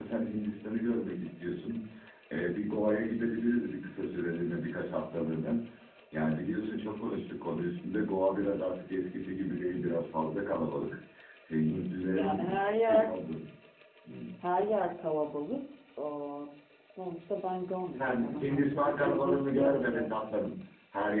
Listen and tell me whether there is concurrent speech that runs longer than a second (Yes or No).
Yes